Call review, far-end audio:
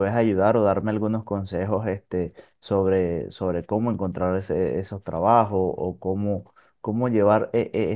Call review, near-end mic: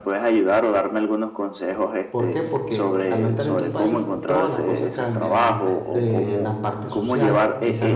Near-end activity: present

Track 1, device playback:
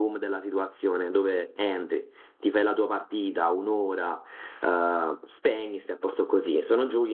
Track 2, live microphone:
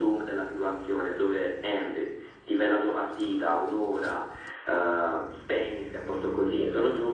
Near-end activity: none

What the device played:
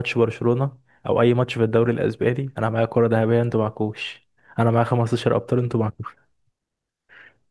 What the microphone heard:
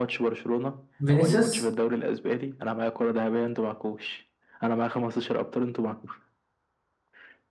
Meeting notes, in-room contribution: present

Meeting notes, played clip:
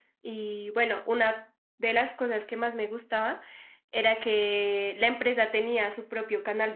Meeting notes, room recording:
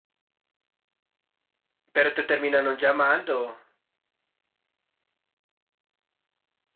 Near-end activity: present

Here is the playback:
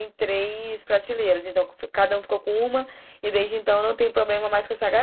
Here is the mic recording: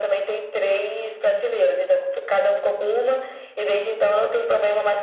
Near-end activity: none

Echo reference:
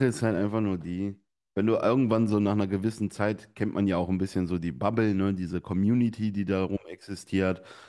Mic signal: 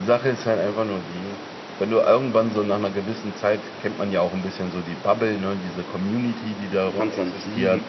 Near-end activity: present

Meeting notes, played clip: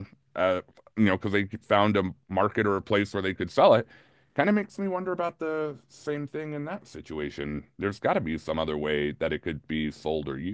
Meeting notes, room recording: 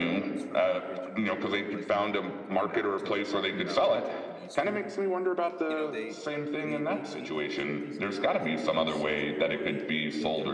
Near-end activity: present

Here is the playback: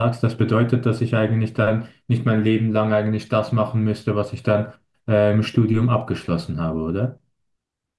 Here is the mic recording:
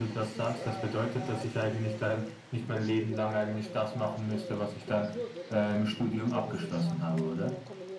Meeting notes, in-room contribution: present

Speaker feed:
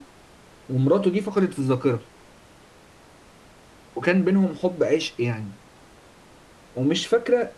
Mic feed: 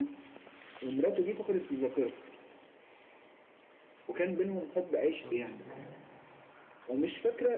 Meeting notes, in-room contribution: present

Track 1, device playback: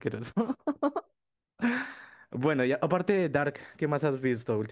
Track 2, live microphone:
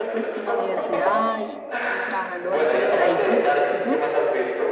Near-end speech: present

